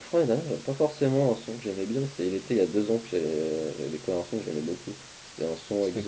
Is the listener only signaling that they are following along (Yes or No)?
Yes